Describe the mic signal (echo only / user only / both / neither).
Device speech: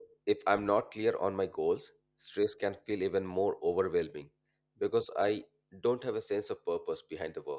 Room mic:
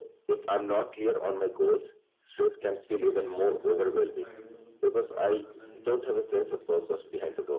both